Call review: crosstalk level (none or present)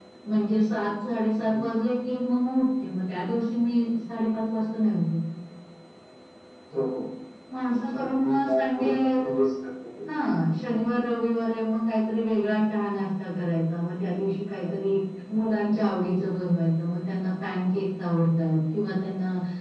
present